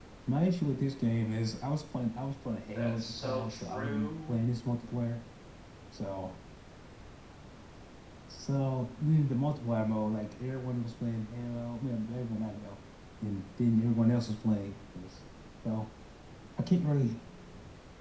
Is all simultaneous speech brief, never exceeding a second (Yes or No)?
No